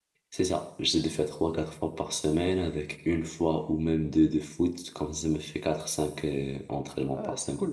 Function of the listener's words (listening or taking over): taking over